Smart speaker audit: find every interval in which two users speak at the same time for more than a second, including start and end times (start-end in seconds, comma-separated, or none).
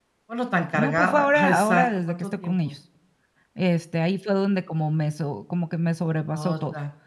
0.7-2.6